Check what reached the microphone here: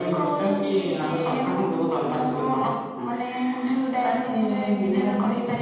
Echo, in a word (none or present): present